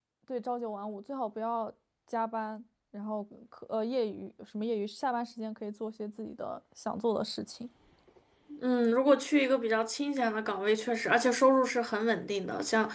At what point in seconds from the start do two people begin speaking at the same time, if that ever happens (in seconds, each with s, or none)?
none